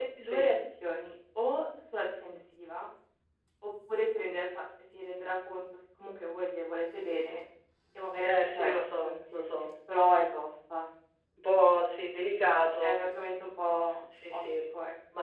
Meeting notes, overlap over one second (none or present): present